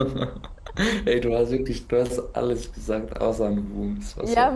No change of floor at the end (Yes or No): No